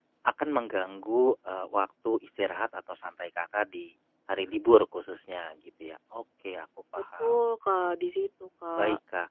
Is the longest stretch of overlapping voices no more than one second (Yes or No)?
Yes